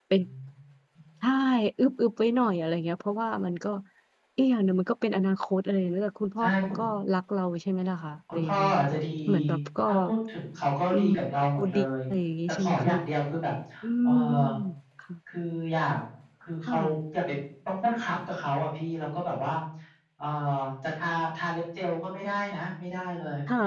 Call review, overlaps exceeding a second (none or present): none